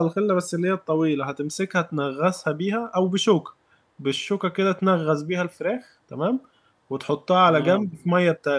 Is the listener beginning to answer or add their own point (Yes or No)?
No